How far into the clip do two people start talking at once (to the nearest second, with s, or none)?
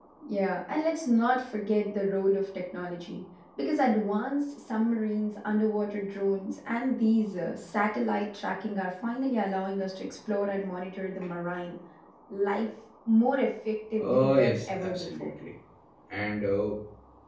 14 s